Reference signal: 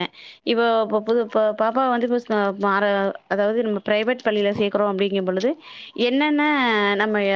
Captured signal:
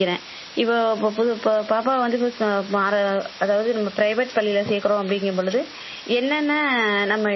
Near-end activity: none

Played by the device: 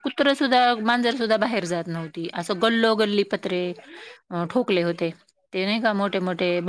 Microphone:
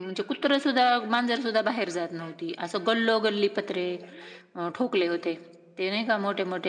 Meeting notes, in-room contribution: none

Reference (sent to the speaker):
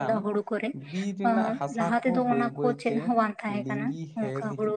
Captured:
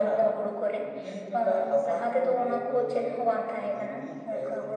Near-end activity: none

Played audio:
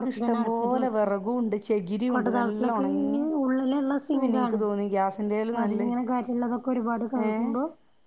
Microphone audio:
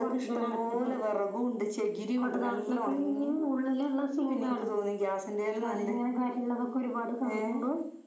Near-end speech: none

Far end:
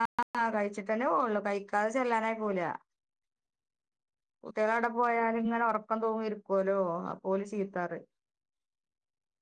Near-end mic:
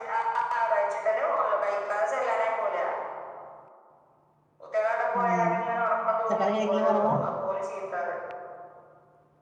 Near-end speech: present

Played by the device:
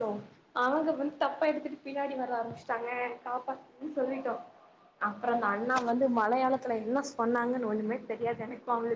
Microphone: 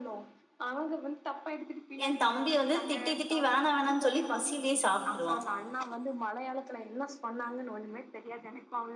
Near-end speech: present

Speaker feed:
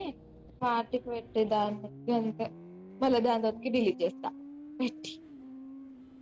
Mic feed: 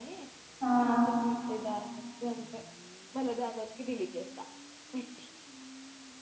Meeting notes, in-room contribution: present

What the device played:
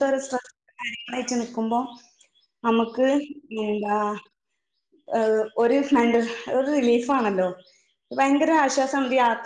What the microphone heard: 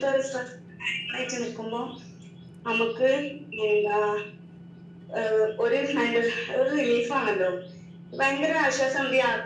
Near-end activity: none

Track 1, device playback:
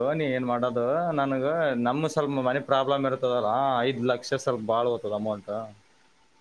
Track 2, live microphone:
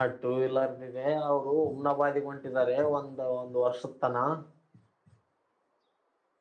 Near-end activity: present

